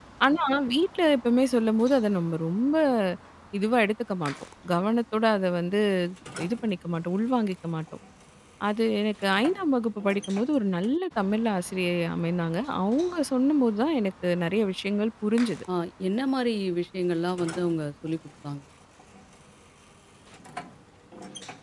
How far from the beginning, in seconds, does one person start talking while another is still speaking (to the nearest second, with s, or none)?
none